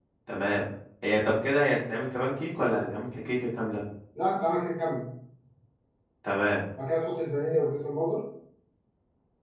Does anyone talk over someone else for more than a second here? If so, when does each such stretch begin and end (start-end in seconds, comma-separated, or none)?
none